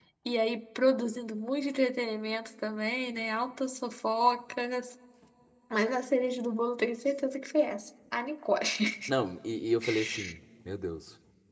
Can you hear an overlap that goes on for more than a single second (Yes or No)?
No